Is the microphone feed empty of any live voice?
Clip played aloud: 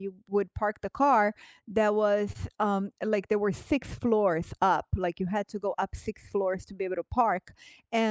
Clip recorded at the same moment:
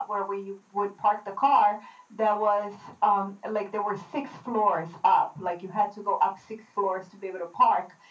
Yes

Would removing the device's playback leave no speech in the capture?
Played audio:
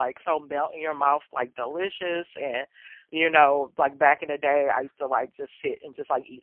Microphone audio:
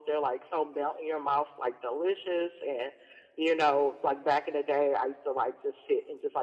Yes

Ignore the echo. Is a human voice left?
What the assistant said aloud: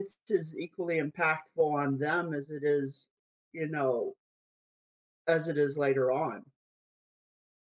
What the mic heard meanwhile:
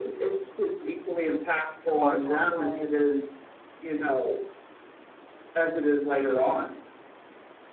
Yes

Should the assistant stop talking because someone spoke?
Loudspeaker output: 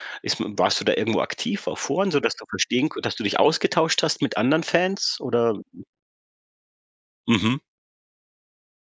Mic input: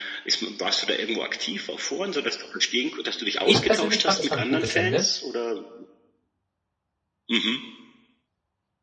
Yes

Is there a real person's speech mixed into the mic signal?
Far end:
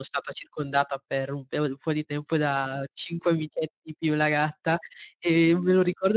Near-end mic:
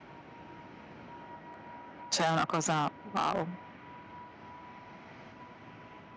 Yes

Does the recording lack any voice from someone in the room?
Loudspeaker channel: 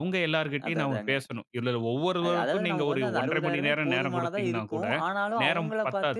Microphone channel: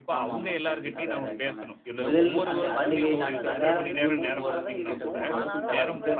No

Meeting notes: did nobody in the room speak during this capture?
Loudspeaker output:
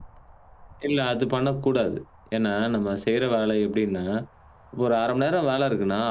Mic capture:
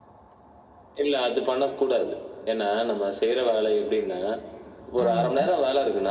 No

